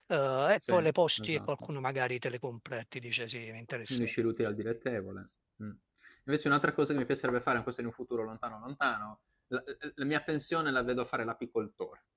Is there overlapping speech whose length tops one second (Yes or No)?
No